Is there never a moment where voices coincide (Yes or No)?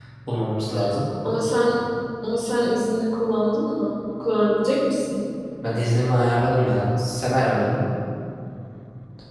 Yes